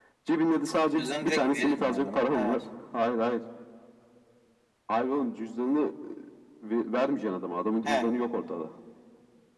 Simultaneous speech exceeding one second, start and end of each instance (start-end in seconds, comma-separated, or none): 0.9-2.6